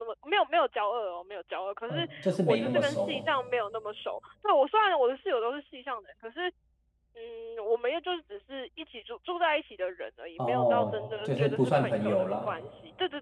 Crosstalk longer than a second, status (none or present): present